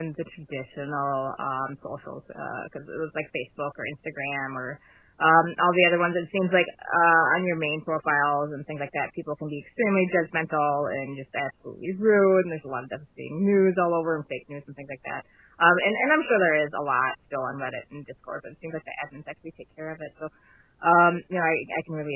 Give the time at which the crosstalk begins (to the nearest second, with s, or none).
none